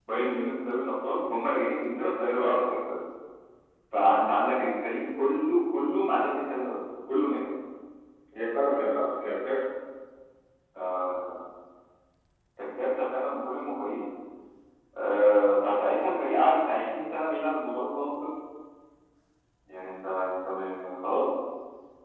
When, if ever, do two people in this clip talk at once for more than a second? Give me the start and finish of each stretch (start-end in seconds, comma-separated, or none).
none